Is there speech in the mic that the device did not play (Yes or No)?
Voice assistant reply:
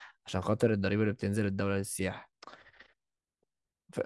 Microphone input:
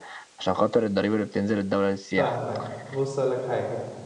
Yes